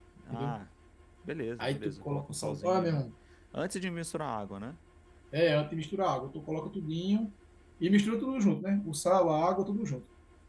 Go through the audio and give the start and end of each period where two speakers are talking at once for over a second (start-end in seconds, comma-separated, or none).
1.6-3.1